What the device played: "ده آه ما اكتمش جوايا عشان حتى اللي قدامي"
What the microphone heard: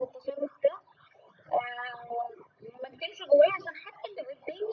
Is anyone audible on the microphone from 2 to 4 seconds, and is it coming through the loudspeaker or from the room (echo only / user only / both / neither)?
echo only